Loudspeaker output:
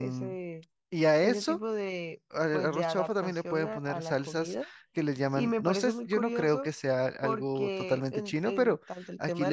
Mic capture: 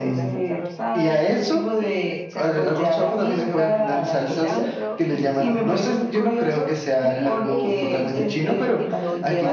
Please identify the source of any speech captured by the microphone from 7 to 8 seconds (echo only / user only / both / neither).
both